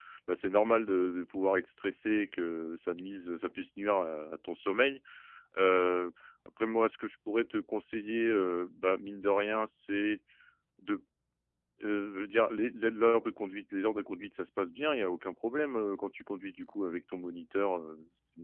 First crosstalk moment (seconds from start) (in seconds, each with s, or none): none